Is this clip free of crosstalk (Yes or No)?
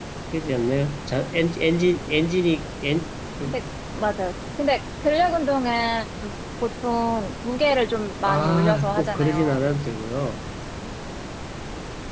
No